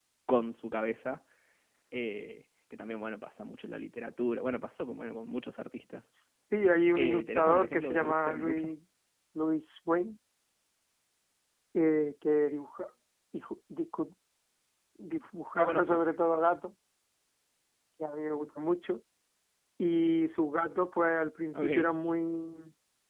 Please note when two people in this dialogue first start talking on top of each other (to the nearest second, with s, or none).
7 s